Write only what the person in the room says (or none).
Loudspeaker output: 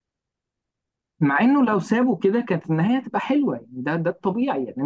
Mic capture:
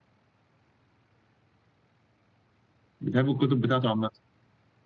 بتحب الكتب بتاعته عامه